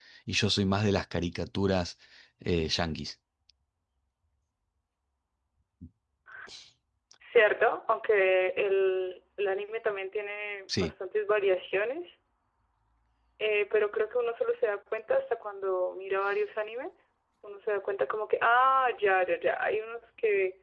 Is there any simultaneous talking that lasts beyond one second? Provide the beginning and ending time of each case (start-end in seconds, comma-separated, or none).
none